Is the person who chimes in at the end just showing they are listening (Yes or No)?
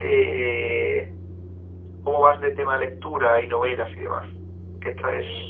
No